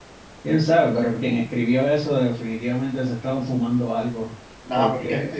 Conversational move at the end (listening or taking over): taking over